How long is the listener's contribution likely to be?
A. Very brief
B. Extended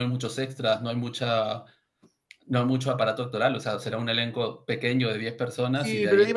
B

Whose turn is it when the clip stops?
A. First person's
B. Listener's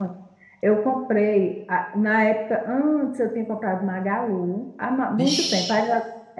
A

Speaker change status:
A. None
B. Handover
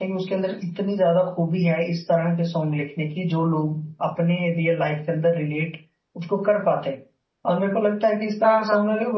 A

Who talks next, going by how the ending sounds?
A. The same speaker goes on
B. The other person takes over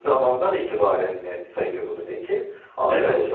B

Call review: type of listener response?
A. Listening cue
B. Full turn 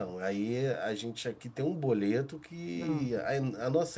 A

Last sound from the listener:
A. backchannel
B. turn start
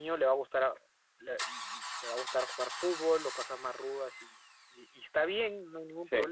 A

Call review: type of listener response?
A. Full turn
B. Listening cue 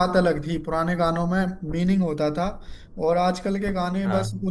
B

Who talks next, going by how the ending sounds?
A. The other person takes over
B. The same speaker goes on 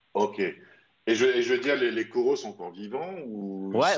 A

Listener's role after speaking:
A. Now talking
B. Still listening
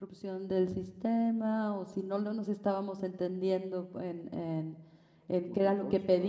B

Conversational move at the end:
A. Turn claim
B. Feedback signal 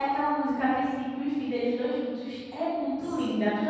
A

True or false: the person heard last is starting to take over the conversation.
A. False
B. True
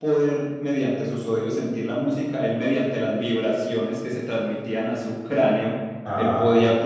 A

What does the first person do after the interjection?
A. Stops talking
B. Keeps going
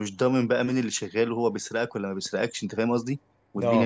B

